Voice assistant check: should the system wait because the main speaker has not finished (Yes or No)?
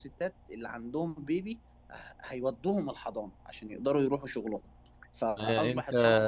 No